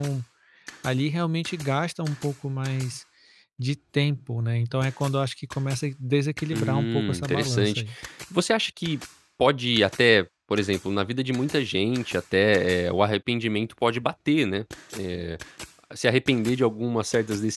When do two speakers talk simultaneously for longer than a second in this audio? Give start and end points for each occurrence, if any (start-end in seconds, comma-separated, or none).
6.5-7.8